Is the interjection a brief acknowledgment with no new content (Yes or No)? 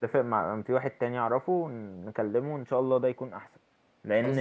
Yes